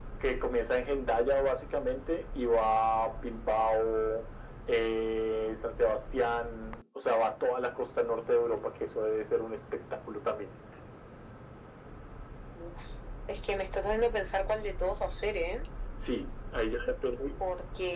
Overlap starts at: none

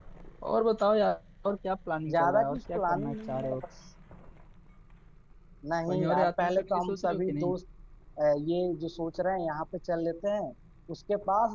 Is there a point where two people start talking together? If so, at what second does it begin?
2.1 s

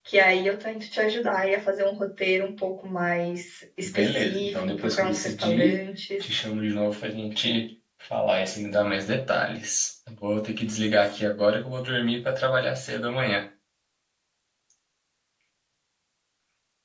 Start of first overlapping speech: 3.8 s

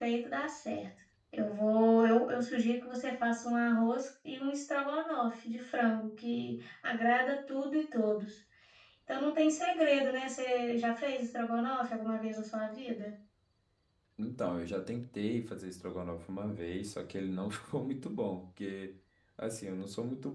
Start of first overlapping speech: none

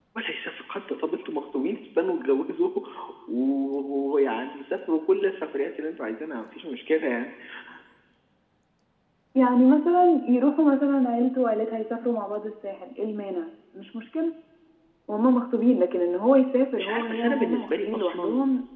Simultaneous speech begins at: 16.8 s

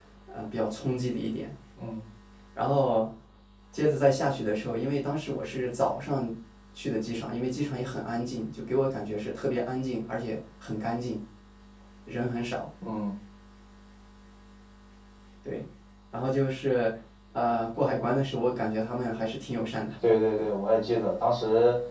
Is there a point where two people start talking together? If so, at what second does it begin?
none

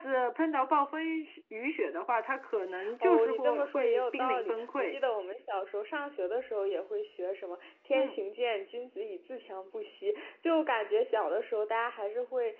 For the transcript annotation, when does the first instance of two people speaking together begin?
3.0 s

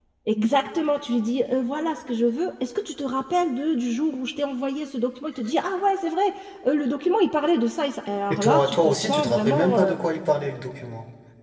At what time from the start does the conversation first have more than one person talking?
8.3 s

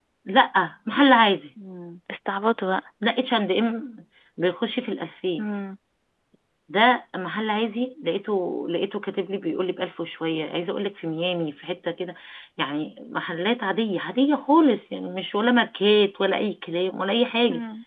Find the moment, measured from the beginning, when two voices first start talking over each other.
none

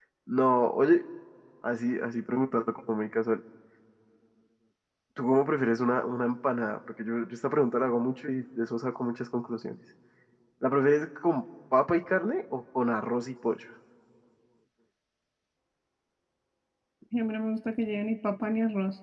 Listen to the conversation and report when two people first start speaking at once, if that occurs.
none

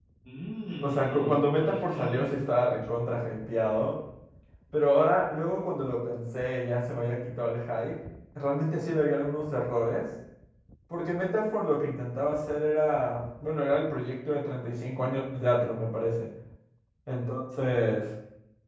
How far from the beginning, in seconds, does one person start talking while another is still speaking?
0.8 s

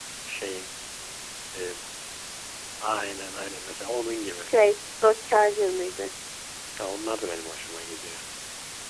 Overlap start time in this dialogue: none

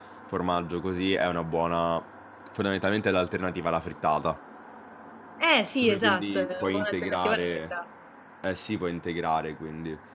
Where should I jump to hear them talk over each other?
5.8 s

